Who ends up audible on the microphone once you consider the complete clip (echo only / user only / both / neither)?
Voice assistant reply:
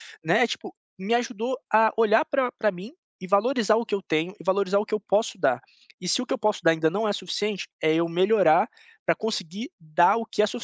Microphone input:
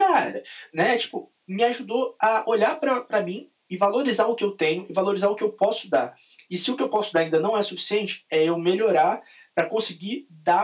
echo only